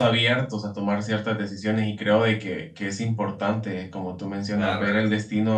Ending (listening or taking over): listening